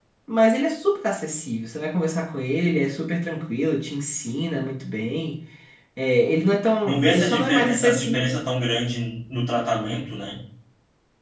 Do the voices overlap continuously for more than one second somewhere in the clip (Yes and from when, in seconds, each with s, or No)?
Yes, from 6.8 s